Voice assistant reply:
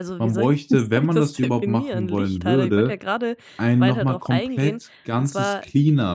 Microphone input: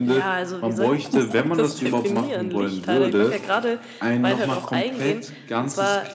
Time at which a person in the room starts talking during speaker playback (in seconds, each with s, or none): none